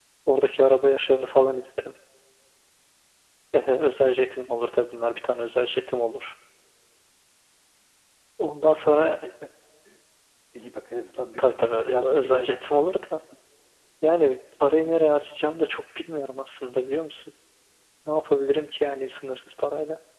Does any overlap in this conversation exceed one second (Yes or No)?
Yes